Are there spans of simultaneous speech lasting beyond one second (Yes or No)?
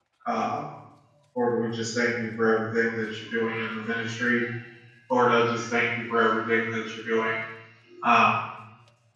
No